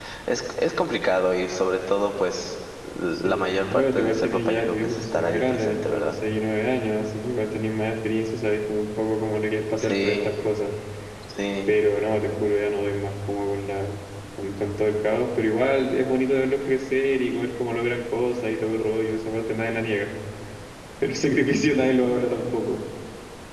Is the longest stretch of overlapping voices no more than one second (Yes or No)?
No